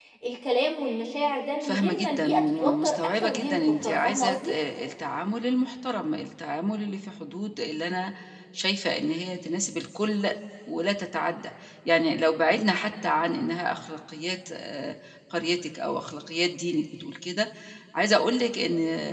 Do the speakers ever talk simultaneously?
Yes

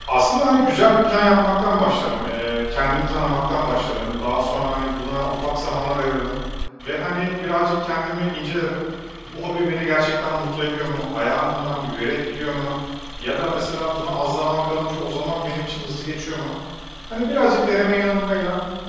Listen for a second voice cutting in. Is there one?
No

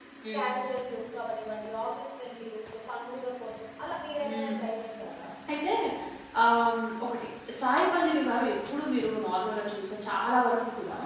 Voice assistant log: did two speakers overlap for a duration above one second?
No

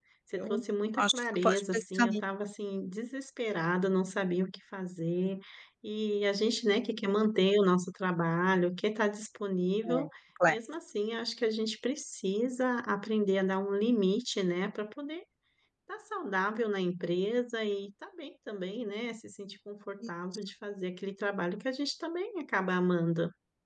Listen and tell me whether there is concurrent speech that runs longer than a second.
Yes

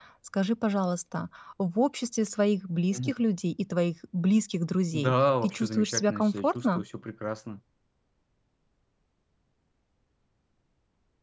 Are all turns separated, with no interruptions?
No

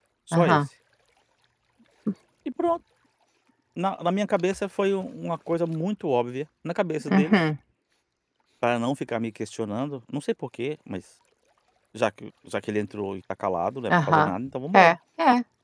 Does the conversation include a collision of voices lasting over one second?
No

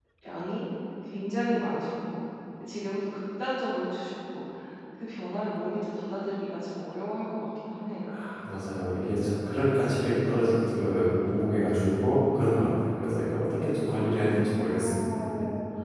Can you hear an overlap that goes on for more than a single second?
Yes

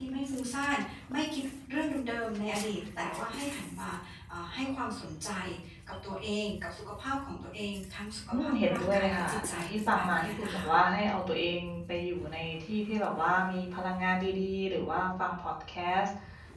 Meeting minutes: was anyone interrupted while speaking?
Yes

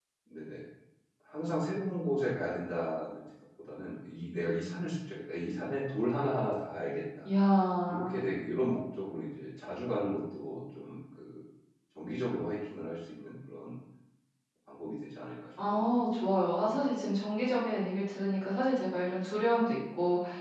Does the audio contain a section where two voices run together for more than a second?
No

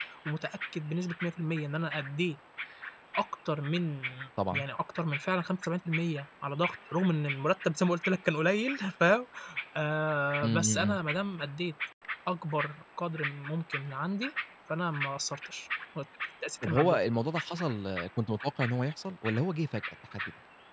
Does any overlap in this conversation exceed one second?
No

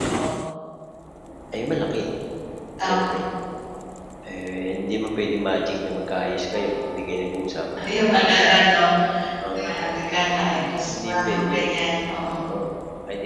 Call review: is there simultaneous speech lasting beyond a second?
Yes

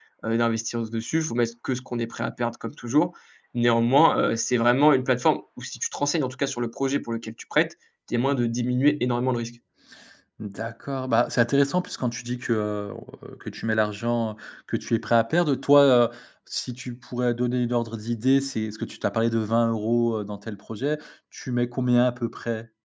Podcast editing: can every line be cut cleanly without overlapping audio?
Yes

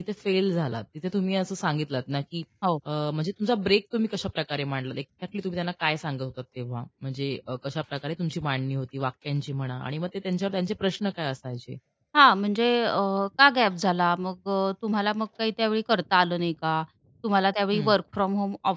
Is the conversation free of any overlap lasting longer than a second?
Yes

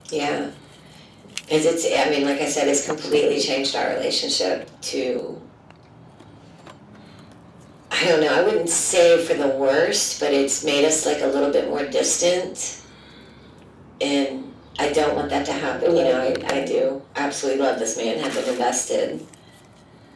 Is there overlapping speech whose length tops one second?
Yes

